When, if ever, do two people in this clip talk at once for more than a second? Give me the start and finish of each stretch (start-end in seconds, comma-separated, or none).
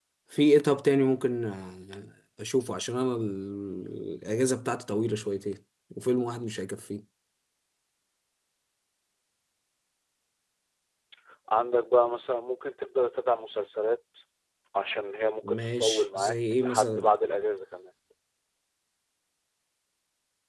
15.4-17.1